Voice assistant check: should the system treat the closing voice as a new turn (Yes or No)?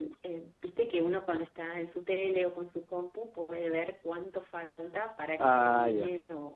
No